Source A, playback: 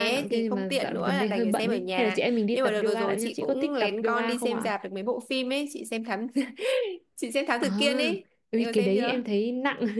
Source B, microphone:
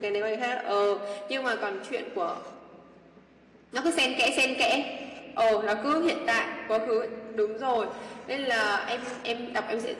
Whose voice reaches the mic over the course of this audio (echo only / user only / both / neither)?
user only